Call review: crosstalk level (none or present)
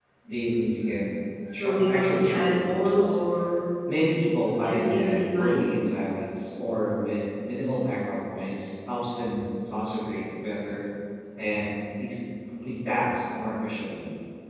present